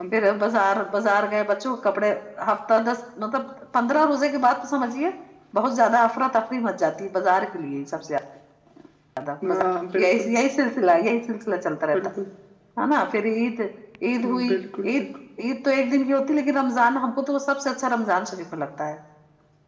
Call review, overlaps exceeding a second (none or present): none